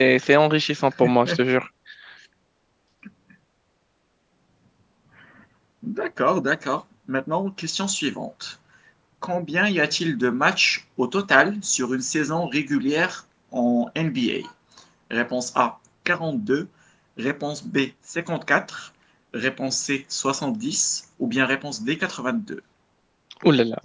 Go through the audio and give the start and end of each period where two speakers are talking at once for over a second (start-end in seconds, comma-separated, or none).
none